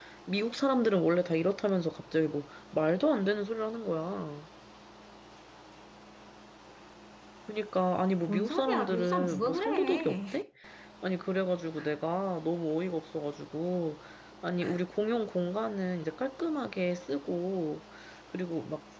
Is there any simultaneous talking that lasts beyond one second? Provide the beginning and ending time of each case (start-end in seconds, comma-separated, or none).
8.3-10.2